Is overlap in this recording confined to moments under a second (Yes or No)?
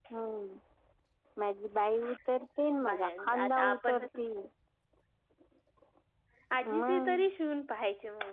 No